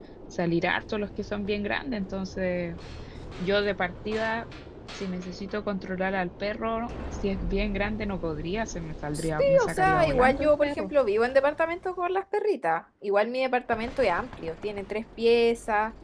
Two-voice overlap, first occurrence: 9 s

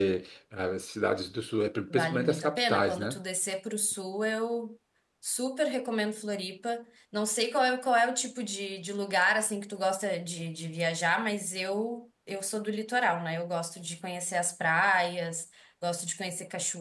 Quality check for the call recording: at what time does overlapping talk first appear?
2 s

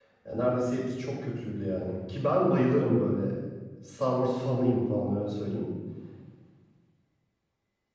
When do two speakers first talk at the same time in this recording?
none

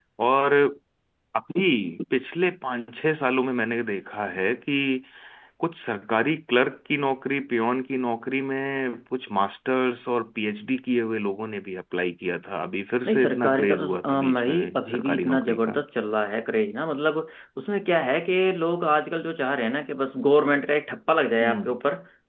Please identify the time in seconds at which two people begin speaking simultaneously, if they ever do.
13 s

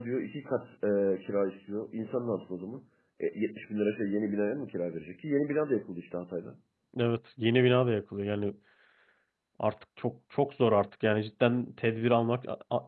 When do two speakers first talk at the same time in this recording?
none

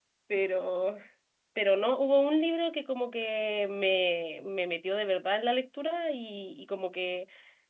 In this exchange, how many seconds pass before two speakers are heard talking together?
none

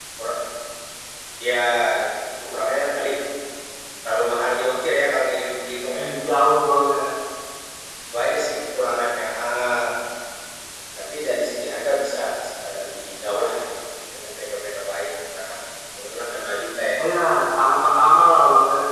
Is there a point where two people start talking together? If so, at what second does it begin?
none

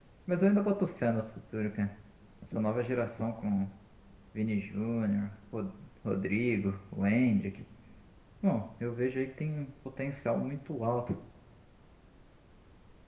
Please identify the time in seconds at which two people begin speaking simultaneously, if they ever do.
none

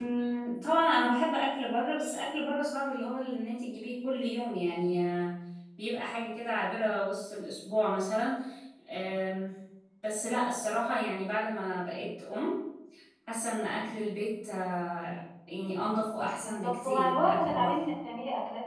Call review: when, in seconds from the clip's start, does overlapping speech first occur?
16 s

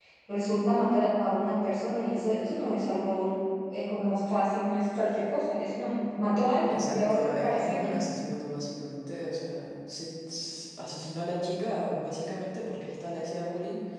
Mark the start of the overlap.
7 s

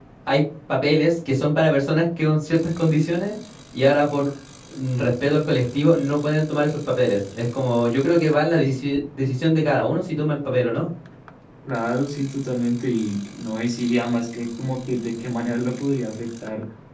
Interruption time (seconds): none

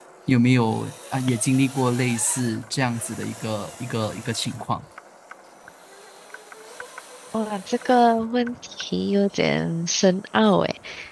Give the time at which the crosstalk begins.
none

